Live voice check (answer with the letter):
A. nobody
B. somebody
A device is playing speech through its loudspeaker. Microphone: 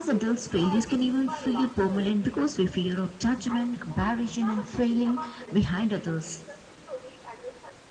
B